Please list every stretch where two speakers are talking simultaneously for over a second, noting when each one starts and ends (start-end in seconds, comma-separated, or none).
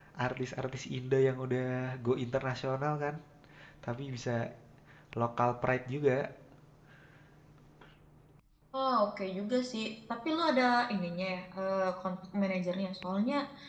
none